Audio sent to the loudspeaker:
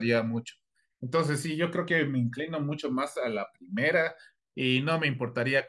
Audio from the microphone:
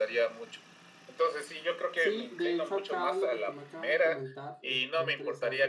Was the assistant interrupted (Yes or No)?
Yes